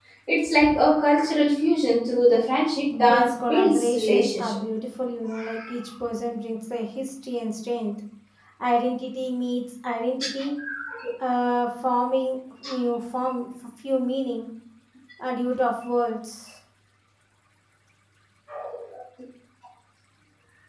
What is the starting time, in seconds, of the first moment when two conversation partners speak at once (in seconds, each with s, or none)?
3.1 s